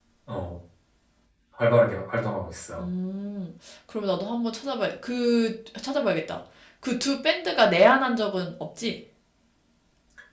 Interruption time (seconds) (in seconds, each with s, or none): none